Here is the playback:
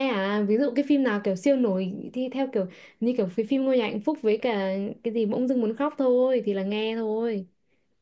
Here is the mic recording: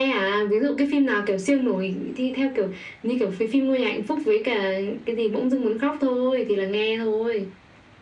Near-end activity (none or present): none